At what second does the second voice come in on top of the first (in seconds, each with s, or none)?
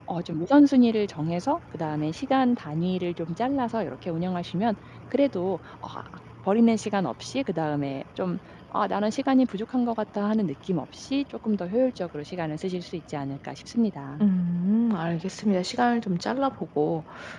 none